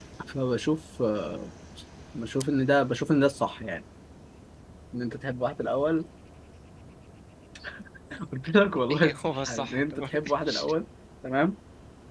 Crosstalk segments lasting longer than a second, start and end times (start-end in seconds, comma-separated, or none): 8.9-10.6